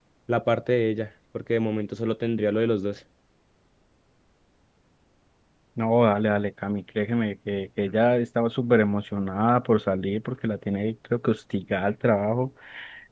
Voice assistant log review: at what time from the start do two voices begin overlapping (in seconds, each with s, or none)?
none